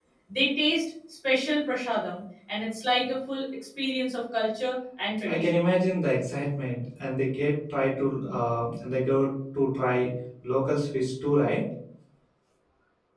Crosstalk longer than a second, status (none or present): none